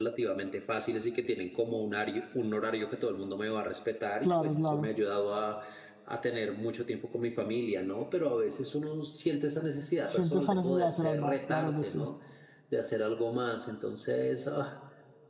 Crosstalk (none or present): present